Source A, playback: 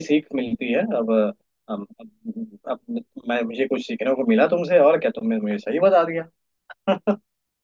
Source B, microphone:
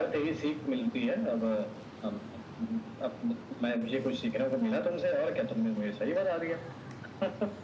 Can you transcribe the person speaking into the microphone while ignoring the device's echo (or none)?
none